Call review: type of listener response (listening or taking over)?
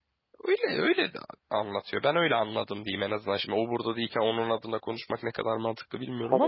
taking over